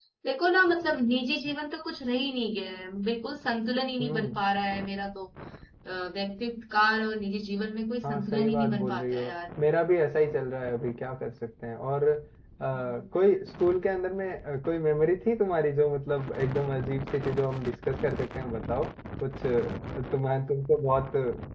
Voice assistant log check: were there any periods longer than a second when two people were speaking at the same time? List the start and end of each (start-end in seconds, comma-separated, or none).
8.0-9.3